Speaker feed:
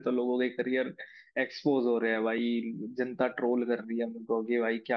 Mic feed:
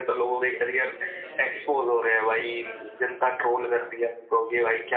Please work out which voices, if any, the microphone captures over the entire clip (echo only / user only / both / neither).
both